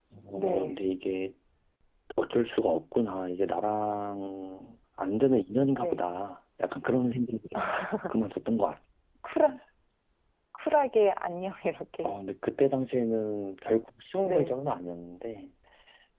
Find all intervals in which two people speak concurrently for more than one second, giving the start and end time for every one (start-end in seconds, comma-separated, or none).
none